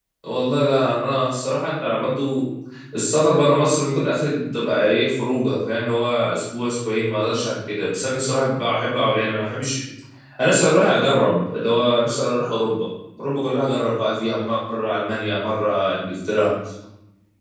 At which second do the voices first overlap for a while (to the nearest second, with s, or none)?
none